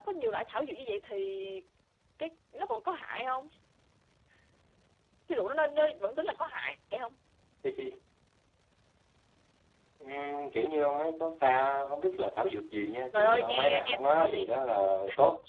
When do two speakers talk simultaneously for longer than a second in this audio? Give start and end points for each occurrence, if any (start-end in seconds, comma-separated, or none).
13.1-14.5